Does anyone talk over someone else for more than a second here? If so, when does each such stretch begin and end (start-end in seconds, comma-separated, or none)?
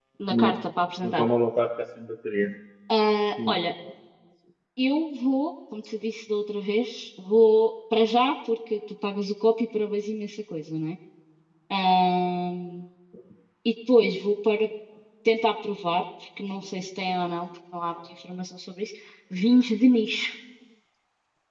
none